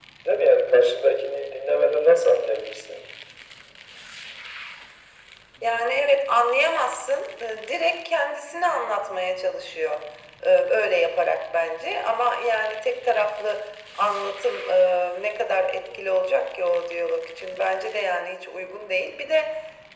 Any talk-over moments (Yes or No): No